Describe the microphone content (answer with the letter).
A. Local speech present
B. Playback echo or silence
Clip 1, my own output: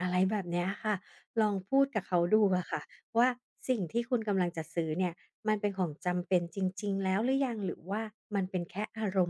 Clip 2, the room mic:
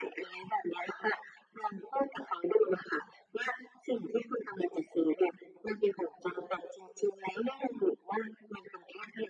B